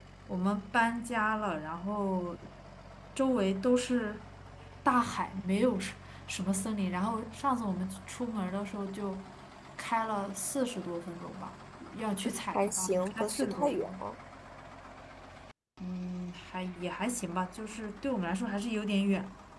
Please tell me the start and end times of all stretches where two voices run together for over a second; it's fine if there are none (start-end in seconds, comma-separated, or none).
12.5-13.9